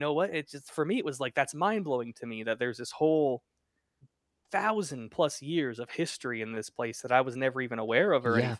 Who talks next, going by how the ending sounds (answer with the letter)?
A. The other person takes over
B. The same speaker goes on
B